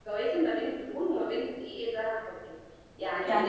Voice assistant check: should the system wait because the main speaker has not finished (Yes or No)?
Yes